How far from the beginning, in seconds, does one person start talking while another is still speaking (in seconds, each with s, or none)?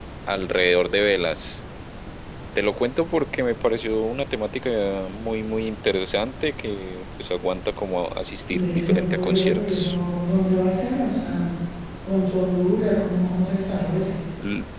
8.5 s